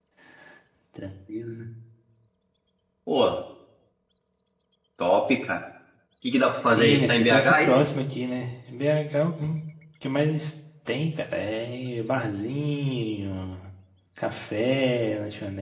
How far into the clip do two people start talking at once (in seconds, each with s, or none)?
6.7 s